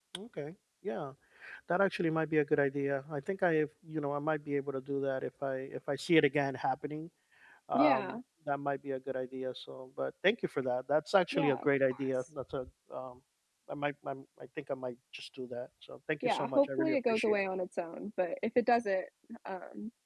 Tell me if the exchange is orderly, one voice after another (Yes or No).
No